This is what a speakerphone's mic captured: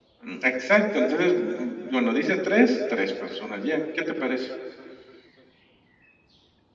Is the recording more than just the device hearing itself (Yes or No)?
No